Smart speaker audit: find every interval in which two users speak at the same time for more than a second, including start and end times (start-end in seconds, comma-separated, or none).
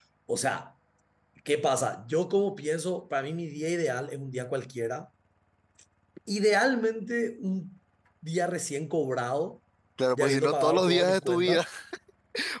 10.2-11.6